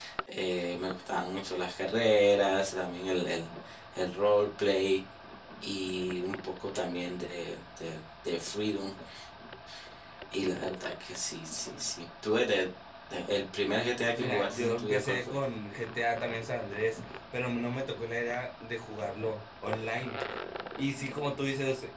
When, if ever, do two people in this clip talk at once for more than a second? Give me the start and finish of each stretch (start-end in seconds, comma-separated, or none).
14.2-15.4